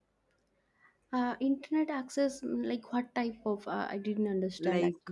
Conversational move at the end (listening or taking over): taking over